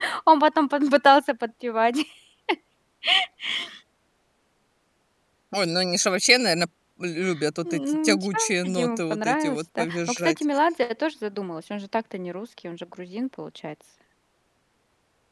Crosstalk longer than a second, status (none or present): present